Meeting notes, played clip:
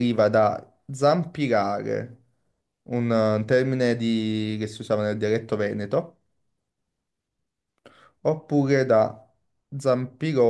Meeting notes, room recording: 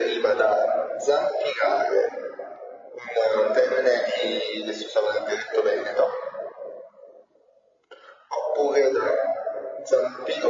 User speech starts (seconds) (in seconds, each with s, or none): none